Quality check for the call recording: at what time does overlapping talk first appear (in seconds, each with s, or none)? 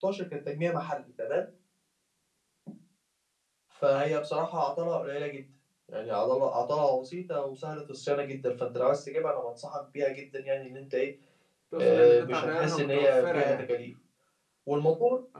11.8 s